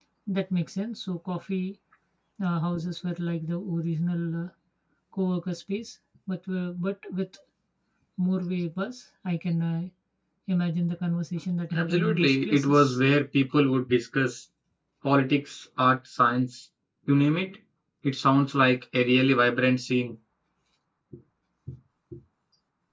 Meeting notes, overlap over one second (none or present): present